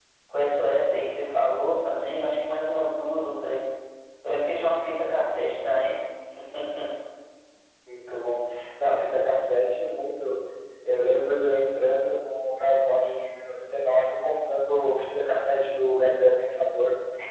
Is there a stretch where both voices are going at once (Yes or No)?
No